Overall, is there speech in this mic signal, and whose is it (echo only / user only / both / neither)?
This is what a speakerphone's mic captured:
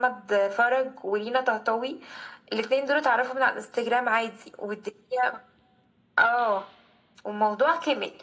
echo only